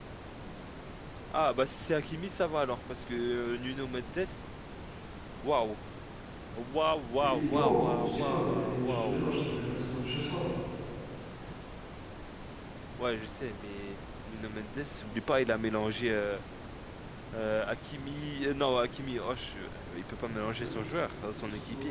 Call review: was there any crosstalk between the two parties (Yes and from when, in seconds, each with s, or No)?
Yes, from 7.2 s